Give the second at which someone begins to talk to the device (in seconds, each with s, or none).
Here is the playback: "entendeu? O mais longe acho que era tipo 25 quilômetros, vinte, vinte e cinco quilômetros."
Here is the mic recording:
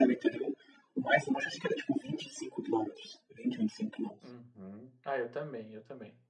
4.2 s